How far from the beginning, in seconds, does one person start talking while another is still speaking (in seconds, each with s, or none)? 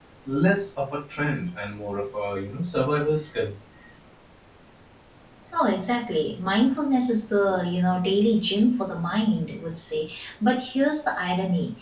none